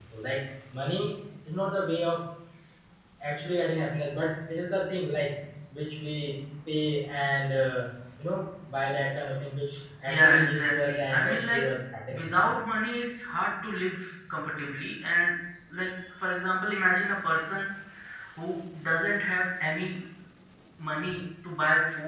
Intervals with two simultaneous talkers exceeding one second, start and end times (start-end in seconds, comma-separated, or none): 10.1-11.6